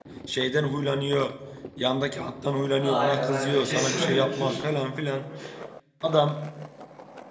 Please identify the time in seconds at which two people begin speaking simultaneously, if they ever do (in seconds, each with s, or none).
2.8 s